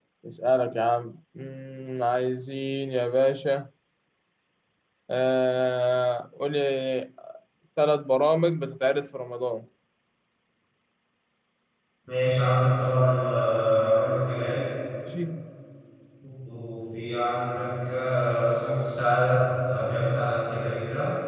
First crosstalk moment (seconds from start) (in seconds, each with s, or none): none